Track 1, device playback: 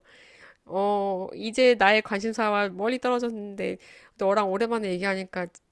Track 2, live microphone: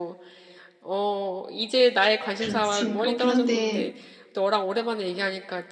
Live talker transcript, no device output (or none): 그렇지. 그렇긴 한데,